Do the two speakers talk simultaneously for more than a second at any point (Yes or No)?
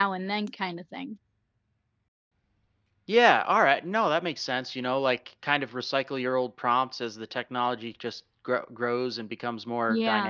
No